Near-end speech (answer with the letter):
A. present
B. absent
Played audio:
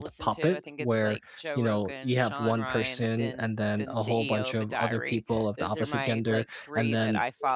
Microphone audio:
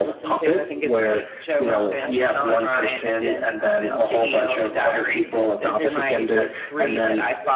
A